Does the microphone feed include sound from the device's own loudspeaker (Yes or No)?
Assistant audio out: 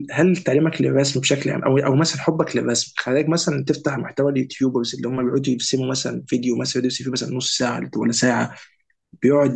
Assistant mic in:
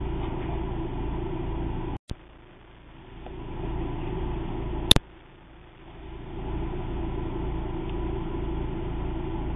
No